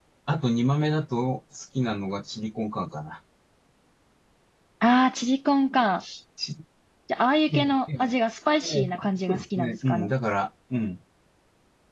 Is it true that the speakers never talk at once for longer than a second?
No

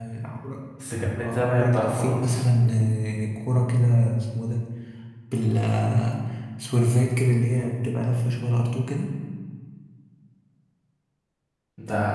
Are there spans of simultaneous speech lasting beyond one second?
Yes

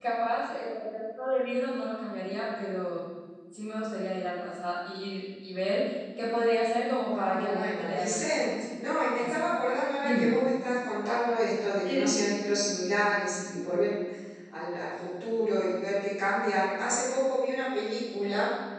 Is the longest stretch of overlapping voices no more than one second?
No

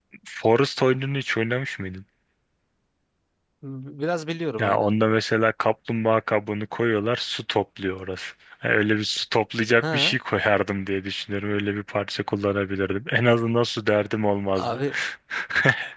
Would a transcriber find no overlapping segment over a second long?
Yes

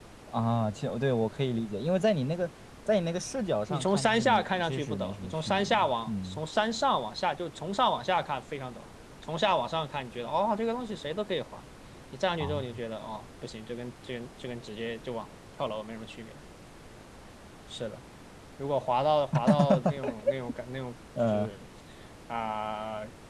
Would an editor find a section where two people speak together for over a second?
Yes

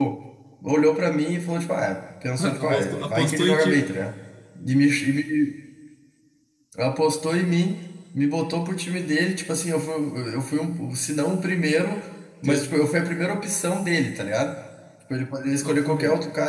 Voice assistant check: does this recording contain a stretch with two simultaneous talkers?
Yes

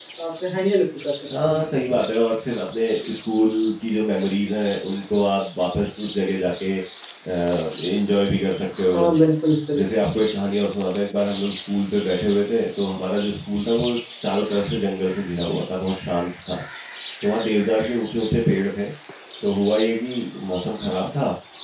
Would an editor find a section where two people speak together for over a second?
No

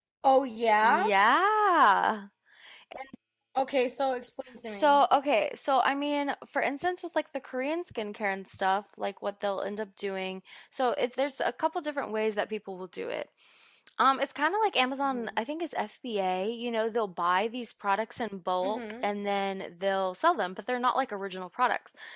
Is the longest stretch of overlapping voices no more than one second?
Yes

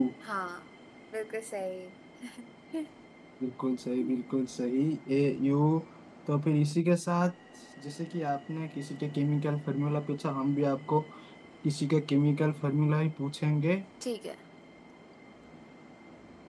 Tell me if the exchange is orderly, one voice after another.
Yes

